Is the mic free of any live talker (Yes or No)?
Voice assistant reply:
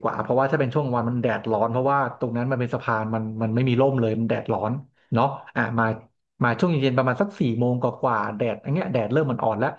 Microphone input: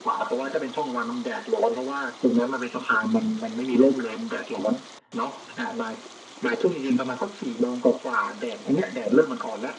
Yes